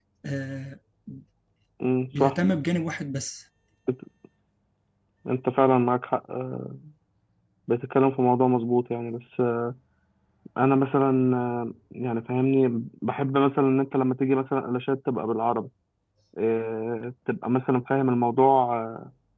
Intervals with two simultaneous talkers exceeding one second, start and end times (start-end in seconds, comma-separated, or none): none